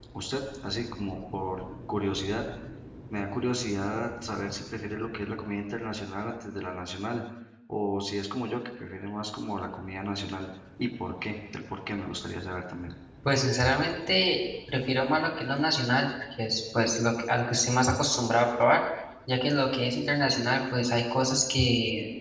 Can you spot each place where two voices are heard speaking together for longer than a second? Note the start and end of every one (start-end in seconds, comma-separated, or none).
none